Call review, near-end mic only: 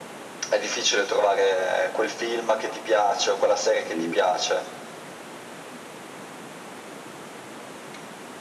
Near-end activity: present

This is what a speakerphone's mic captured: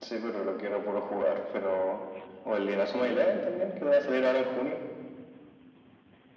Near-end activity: none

